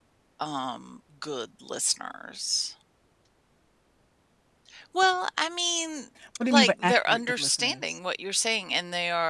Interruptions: present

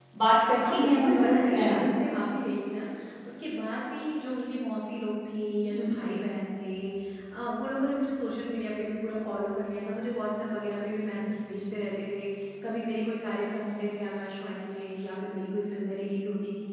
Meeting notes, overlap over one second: present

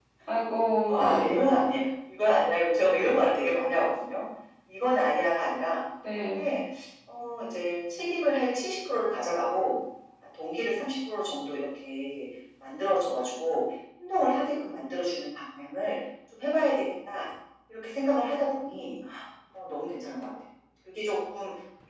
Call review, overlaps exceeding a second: none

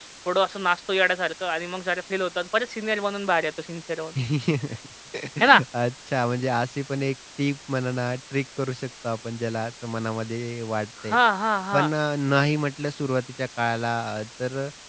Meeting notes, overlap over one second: none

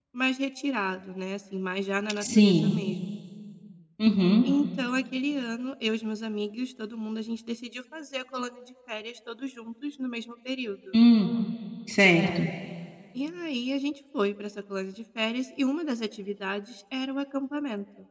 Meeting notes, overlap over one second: none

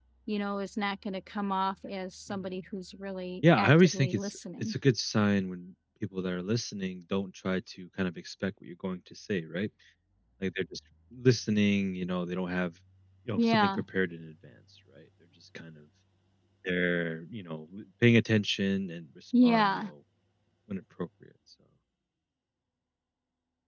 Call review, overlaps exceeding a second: present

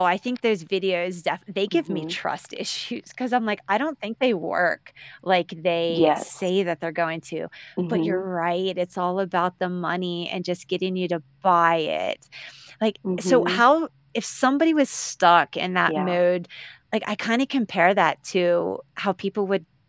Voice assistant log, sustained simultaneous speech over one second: none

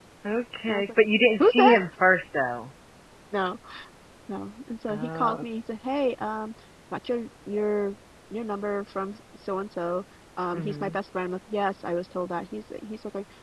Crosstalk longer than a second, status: none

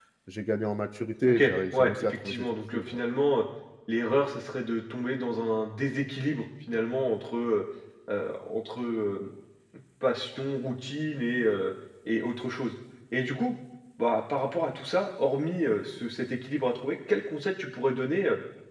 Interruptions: present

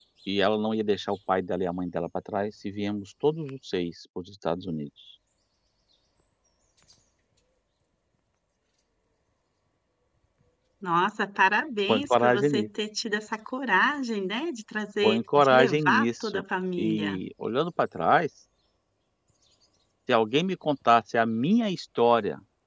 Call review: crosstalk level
present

